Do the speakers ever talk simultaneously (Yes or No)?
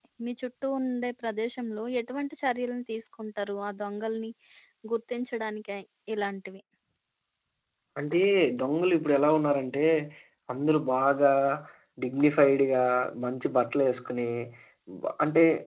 No